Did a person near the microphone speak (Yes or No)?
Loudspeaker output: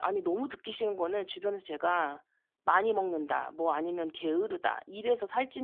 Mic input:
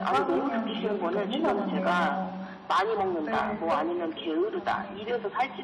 Yes